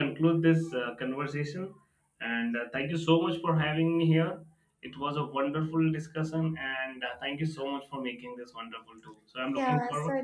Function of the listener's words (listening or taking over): taking over